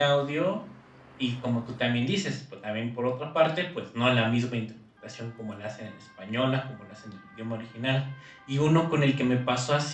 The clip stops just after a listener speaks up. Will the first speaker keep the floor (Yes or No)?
Yes